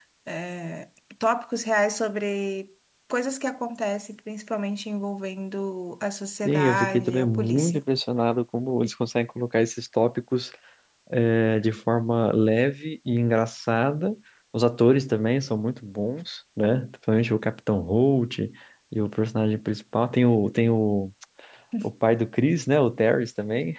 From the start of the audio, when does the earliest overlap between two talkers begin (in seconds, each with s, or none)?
6.5 s